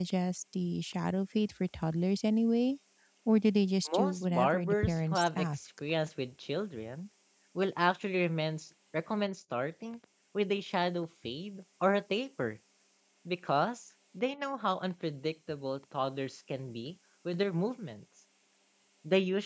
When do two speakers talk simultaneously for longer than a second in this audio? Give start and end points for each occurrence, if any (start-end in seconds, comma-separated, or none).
3.9-5.6